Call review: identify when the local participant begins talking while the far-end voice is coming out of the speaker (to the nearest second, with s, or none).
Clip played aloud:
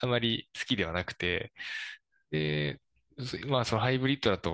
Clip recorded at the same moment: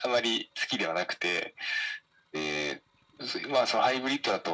none